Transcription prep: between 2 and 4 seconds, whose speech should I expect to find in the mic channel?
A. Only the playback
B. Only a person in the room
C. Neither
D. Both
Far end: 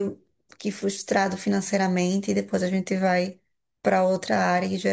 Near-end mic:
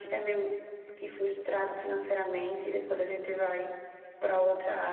A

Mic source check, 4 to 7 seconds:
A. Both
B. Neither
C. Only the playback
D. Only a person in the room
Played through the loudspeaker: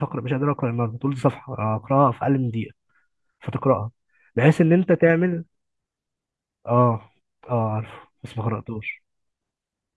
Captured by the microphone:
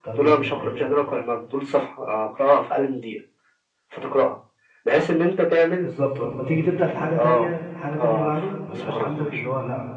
A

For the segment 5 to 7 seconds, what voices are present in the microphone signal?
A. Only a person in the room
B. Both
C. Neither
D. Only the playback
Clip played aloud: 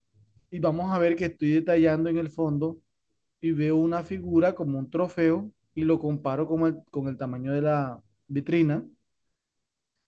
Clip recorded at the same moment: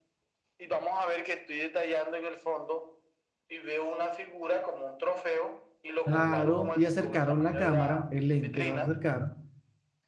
B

